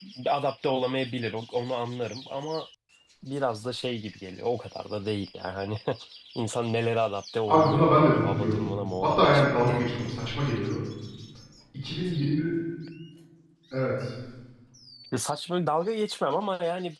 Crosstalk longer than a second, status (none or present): present